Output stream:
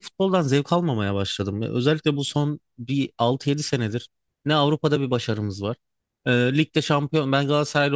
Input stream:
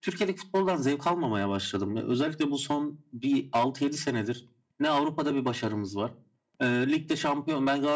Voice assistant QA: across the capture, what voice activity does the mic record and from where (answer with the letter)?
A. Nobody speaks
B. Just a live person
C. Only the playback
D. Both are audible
C